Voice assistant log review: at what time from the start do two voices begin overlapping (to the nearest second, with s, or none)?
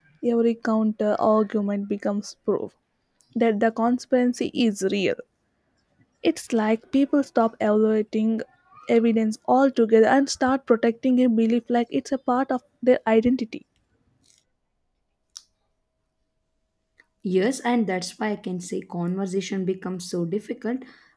none